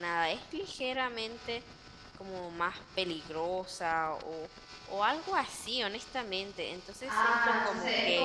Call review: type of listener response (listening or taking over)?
taking over